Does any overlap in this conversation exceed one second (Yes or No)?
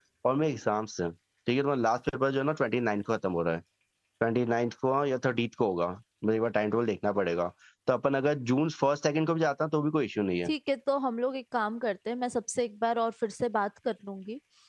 No